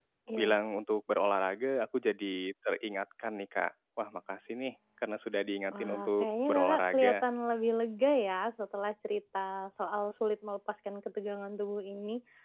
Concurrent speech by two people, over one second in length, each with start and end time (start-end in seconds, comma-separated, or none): 5.7-7.2